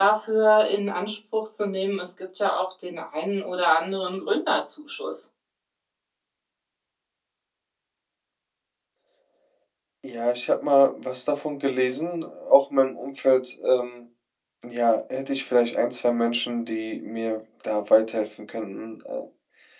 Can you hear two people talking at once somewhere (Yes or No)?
No